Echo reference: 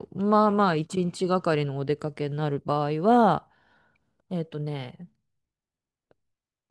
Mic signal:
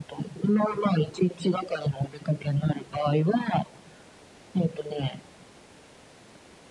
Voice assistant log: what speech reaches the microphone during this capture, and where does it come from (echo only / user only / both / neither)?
echo only